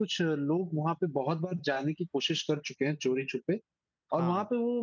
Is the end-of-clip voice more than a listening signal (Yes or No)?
No